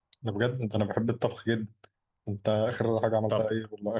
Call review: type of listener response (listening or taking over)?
listening